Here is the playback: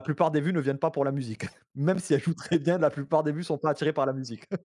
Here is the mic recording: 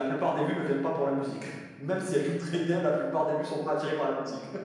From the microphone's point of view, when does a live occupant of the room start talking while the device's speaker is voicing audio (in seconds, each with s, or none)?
none